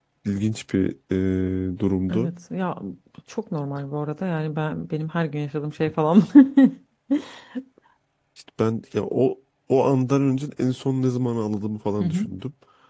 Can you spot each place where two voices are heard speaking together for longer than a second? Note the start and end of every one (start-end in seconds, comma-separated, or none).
none